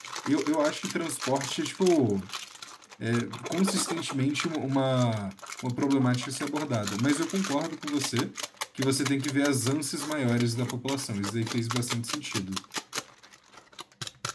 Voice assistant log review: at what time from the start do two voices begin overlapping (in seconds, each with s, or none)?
none